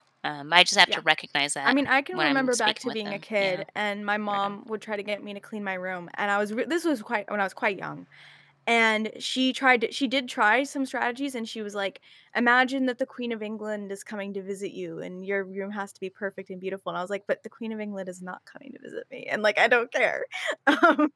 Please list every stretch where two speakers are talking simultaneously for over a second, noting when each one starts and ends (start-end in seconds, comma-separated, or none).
2.1-3.6